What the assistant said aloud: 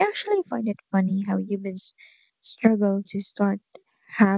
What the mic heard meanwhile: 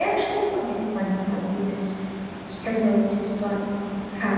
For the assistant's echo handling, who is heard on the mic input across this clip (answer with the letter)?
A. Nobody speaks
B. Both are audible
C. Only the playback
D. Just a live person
C